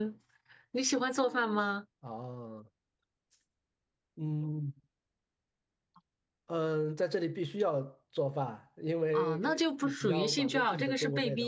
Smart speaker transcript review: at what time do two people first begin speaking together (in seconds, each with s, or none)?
9.1 s